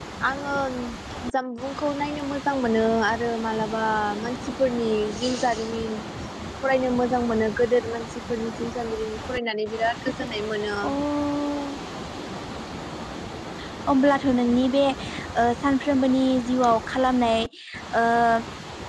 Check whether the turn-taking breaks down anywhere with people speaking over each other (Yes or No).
No